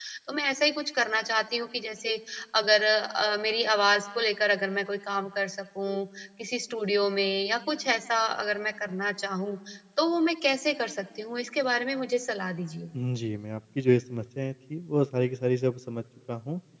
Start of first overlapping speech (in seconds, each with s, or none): none